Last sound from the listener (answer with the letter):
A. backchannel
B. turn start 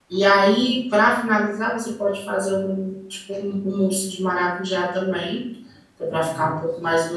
A